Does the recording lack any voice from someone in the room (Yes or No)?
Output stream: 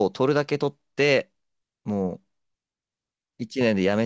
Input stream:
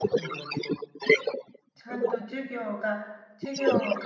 No